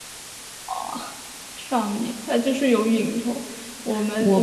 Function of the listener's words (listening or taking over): taking over